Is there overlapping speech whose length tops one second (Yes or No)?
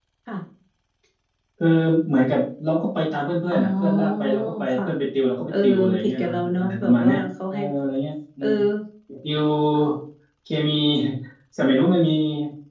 Yes